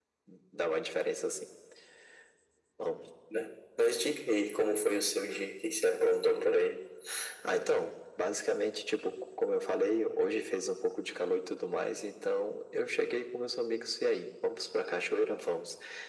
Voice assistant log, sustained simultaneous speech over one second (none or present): none